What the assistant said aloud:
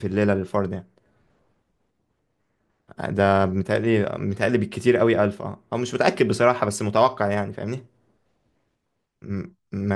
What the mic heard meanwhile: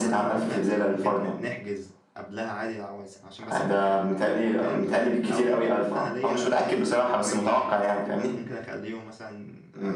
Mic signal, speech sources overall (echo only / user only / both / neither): both